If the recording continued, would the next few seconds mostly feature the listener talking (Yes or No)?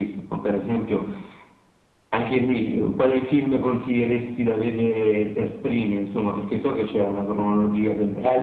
Yes